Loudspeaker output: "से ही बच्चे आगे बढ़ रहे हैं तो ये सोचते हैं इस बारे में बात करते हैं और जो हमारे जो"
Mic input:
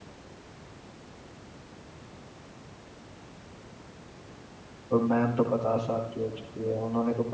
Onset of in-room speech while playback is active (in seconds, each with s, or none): 4.9 s